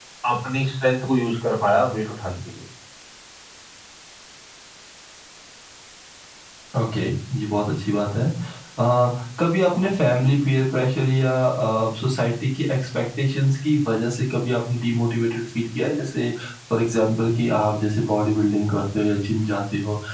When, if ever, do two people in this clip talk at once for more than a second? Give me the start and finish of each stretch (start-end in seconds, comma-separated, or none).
none